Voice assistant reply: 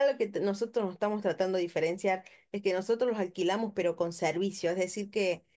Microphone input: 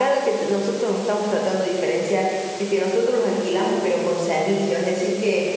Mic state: echo only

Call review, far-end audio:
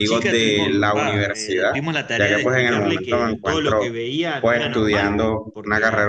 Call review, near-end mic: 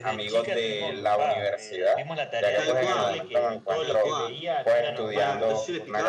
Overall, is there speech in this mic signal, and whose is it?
both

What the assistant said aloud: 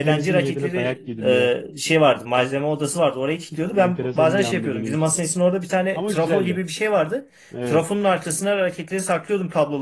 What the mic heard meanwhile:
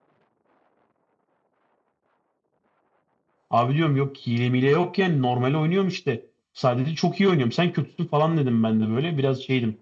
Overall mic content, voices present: user only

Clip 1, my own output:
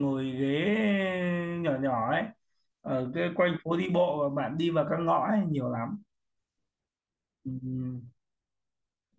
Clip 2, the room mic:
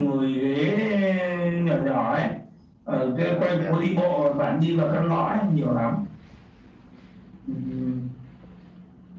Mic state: both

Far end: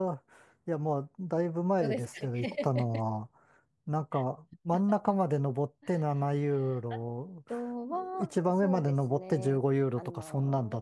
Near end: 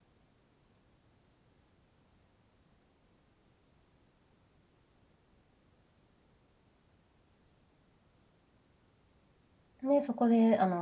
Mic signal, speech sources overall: user only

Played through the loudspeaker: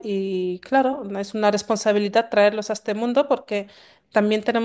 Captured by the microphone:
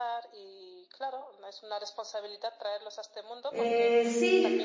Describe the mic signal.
both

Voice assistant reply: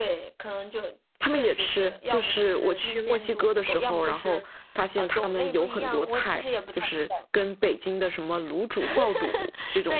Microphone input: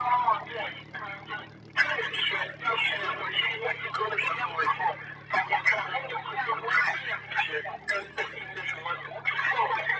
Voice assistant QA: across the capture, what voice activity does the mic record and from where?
echo only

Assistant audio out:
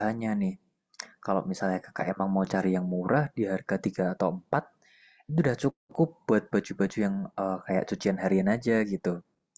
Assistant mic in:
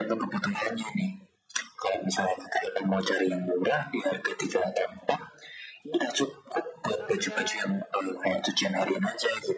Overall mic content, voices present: both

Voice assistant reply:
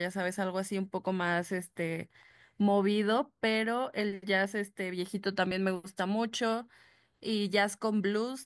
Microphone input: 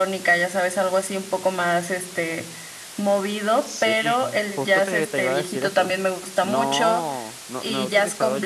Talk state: both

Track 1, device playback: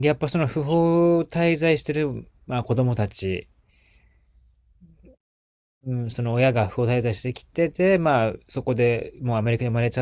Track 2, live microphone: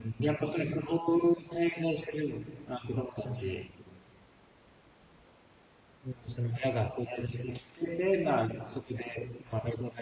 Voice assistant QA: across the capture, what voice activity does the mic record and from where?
echo only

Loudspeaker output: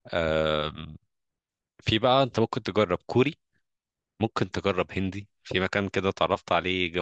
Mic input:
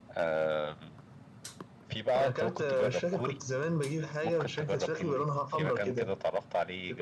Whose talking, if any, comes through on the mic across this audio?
both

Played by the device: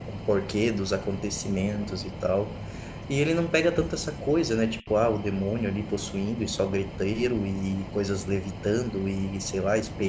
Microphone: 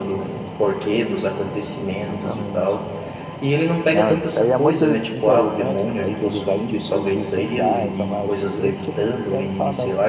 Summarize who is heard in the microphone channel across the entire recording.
both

